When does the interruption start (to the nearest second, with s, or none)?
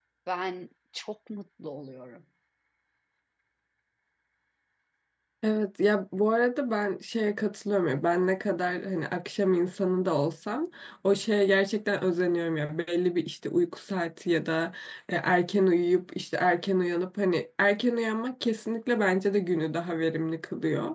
none